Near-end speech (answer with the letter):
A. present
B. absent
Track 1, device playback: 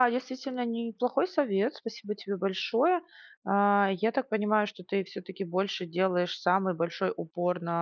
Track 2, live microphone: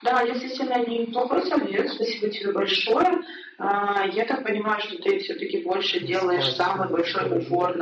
A